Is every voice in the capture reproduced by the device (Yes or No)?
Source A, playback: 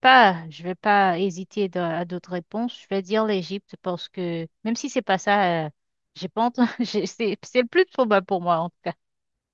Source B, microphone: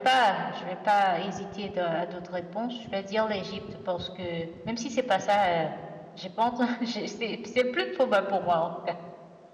Yes